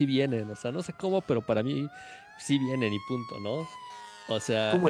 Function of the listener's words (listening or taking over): taking over